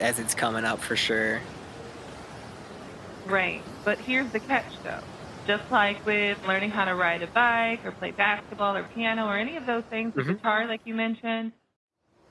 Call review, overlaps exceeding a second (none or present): none